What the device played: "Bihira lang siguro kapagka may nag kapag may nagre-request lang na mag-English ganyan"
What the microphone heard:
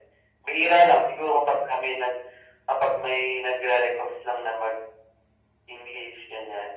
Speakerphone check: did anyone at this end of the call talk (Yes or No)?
No